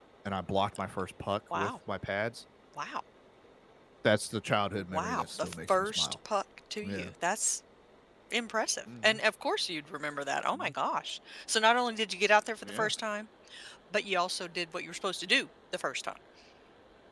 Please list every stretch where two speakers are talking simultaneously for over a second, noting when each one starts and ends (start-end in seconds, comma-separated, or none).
4.9-6.2